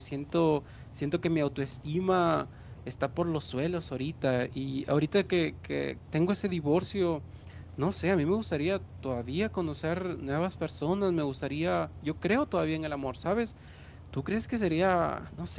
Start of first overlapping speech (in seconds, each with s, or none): none